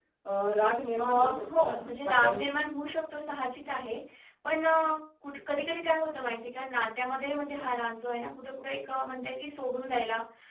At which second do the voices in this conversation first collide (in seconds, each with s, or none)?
1.0 s